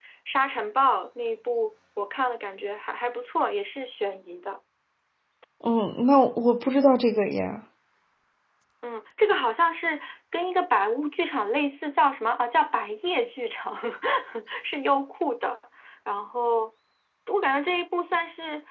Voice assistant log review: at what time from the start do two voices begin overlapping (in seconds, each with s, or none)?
none